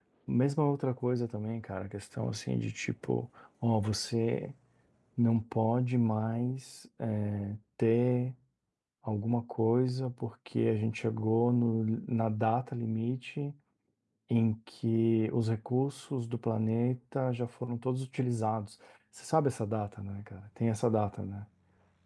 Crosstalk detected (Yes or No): No